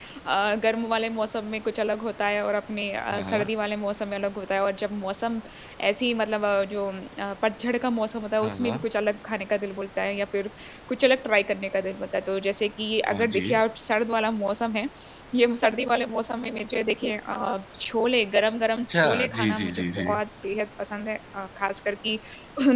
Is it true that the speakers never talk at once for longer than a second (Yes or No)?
No